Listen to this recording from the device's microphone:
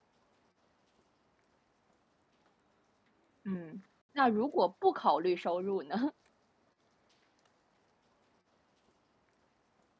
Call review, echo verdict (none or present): none